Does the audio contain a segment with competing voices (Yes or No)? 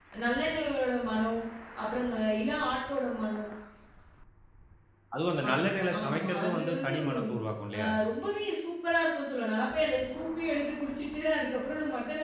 Yes